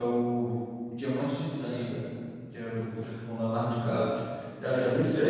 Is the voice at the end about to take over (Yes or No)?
Yes